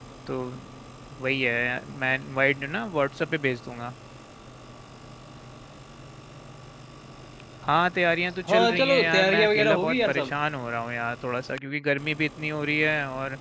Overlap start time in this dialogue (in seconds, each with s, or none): 8.5 s